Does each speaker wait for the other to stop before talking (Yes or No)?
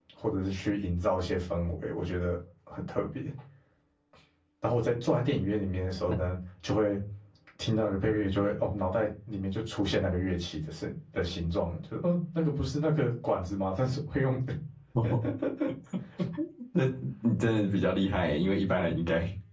Yes